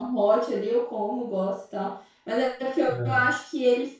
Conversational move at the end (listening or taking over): listening